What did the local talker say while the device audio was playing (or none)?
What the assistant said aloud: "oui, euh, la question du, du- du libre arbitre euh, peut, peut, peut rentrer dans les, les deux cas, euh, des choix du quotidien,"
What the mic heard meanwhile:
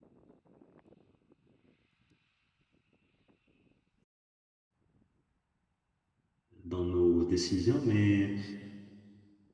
dans nos décisions, mais,